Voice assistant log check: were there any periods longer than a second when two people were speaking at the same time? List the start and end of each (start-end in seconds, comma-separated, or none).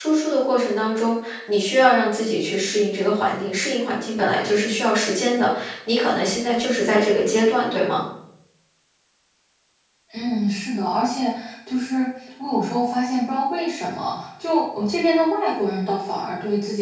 none